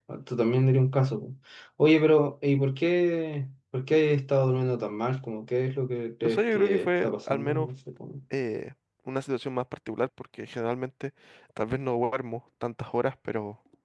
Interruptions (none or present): present